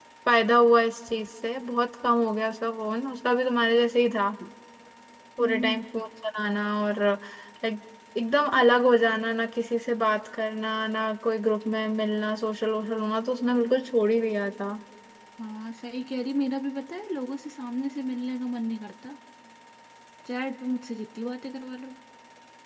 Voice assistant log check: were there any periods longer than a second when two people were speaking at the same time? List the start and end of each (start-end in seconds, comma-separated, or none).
none